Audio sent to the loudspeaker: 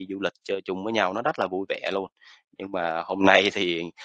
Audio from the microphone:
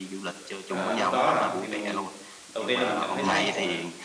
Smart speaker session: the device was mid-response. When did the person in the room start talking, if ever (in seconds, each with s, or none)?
0.7 s